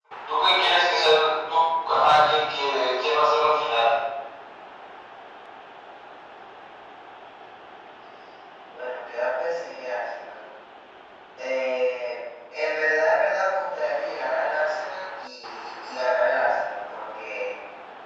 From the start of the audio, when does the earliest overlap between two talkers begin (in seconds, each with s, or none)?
none